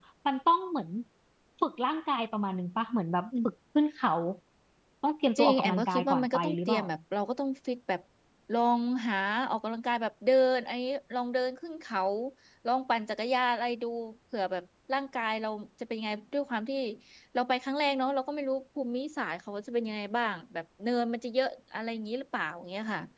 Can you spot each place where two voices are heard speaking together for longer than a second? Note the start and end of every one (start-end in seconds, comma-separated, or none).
5.4-6.8